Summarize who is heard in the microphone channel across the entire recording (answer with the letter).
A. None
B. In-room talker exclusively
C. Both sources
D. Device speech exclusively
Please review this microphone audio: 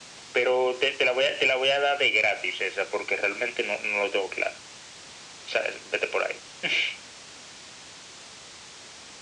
D